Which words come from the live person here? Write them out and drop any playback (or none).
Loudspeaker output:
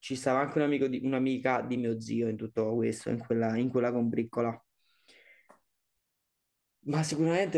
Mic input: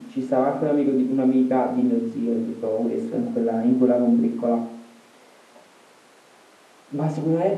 none